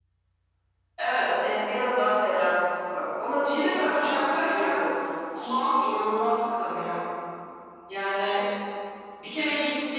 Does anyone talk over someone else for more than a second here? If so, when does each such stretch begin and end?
3.5-4.8

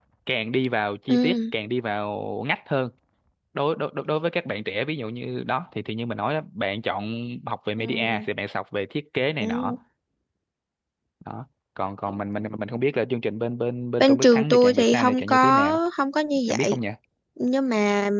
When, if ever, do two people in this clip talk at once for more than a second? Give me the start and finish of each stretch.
14.0-15.8

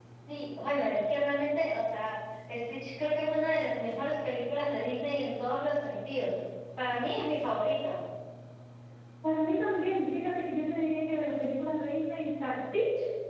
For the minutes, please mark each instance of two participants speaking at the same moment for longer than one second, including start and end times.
none

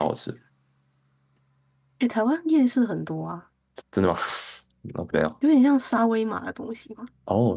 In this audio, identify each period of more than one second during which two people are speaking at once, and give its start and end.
none

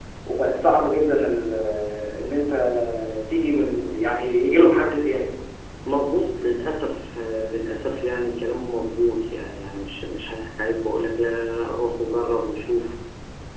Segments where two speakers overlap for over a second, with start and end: none

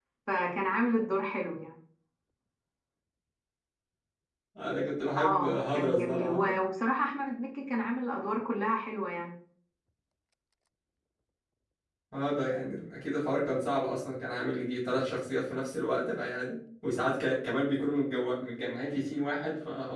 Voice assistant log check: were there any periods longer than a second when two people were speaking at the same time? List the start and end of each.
5.2-6.6

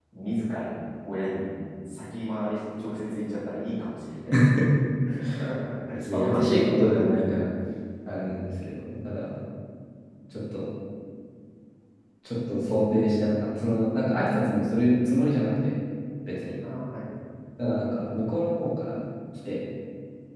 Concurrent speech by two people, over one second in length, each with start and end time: 6.1-7.4

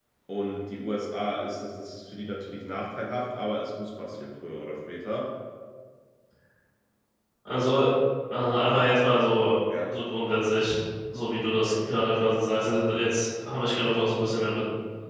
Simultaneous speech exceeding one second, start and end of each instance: none

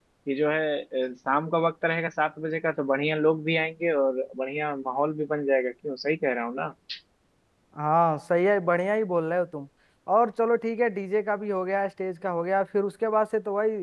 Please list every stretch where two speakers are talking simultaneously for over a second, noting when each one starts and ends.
none

